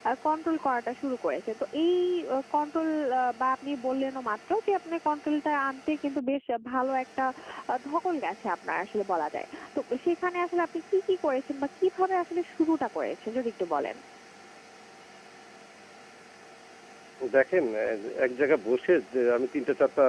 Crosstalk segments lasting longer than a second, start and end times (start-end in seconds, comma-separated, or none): none